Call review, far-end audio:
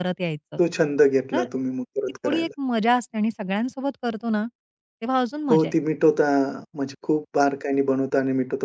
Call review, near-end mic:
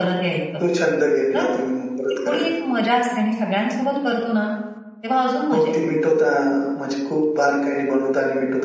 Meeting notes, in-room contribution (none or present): none